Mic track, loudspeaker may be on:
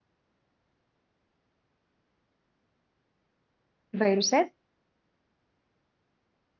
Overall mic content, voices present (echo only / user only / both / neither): user only